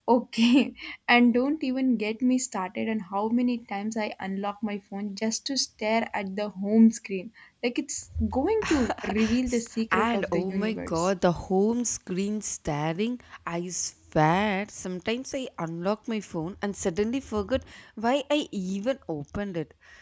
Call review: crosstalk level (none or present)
present